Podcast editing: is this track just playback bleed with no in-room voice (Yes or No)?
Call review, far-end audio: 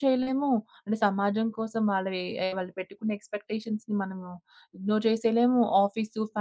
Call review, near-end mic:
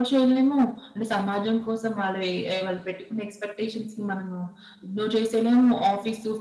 Yes